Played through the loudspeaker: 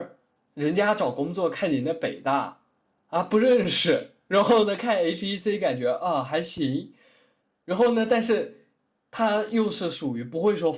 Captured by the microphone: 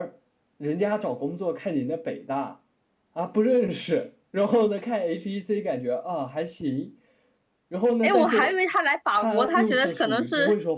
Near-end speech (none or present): present